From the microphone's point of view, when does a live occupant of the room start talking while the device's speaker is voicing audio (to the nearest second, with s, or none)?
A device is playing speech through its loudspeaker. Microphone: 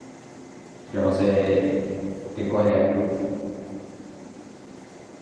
1 s